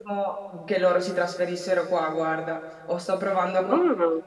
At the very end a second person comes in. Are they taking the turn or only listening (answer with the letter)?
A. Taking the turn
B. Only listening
B